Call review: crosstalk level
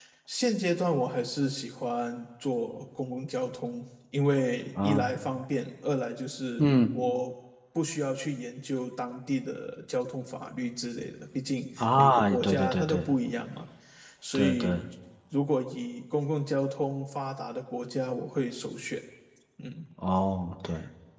present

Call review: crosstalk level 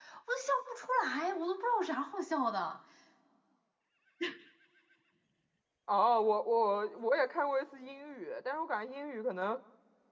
none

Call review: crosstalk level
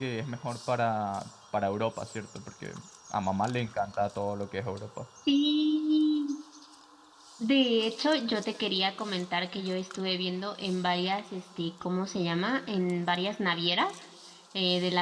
none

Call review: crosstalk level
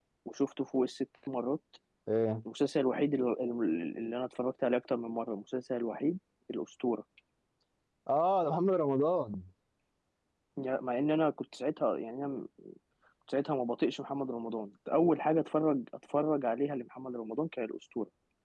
none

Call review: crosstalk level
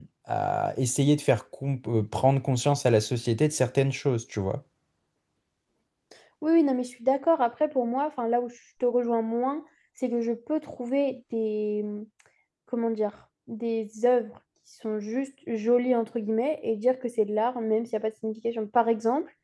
none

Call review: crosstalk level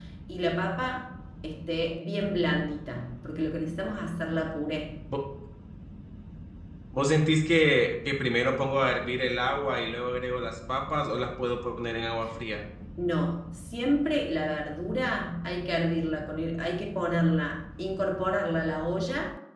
none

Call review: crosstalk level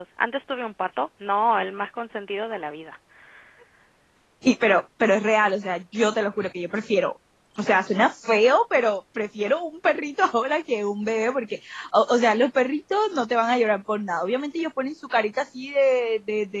none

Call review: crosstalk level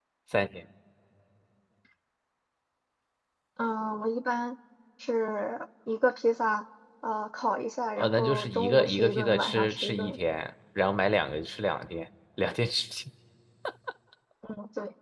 present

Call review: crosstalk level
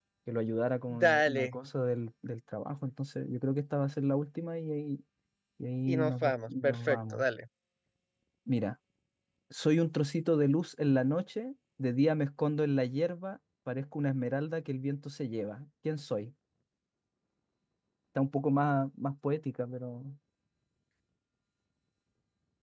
present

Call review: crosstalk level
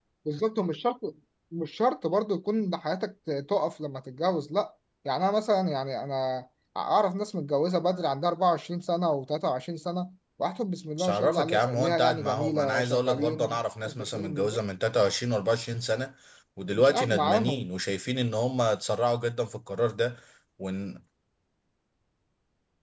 present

